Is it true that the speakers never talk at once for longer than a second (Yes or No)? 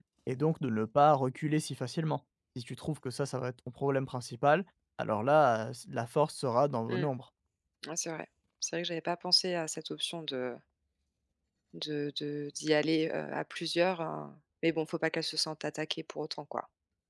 Yes